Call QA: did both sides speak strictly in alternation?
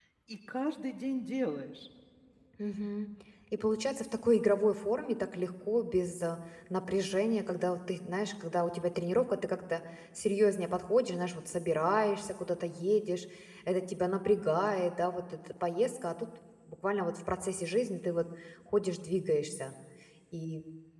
Yes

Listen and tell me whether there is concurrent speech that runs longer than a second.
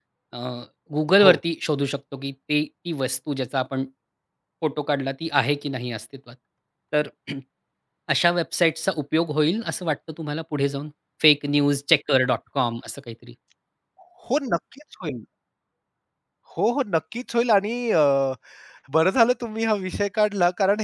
No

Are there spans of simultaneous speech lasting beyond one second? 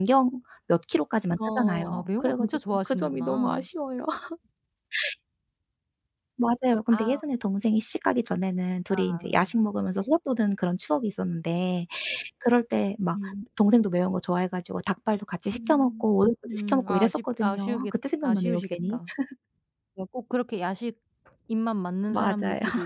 Yes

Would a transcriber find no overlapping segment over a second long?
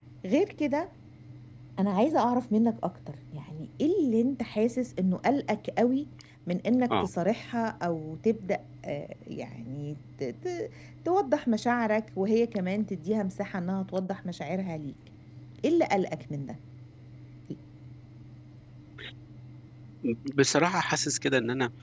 Yes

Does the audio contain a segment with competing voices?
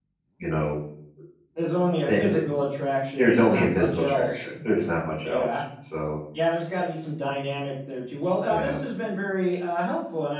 Yes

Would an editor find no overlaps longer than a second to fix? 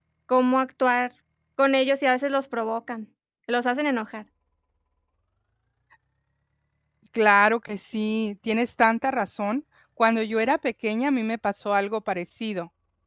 Yes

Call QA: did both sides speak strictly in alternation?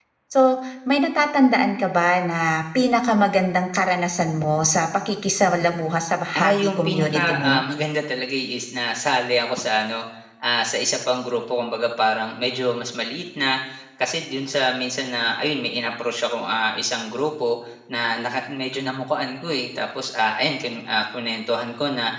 No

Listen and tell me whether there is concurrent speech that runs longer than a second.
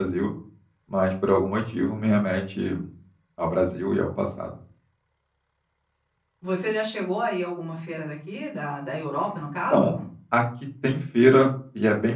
No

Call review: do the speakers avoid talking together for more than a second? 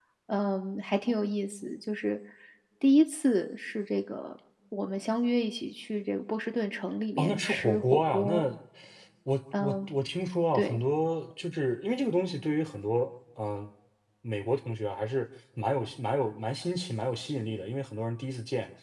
No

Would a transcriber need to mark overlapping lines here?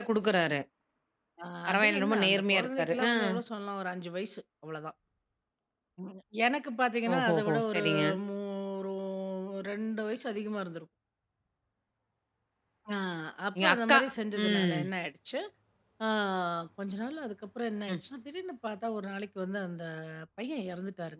Yes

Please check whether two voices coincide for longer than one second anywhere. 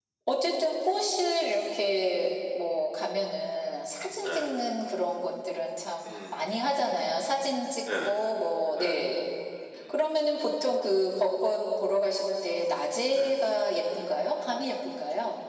No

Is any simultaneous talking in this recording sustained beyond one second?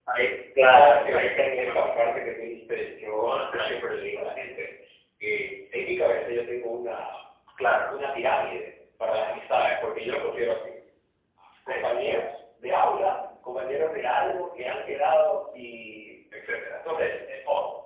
Yes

